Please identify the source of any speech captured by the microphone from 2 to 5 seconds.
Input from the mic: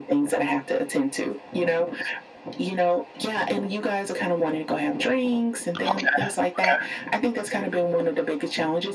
echo only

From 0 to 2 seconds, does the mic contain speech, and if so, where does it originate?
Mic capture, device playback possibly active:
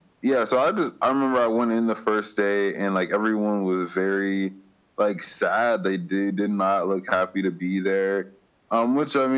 echo only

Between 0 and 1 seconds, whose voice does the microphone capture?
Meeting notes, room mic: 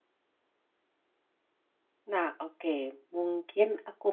neither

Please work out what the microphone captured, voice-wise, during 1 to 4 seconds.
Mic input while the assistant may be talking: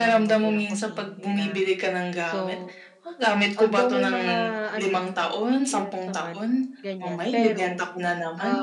both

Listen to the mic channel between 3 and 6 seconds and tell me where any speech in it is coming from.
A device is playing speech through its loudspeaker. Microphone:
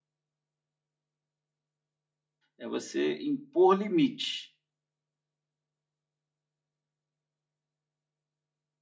user only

